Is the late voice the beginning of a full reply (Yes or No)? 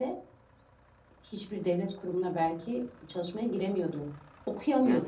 No